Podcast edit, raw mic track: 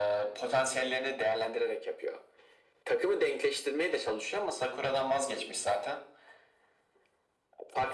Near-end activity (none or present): none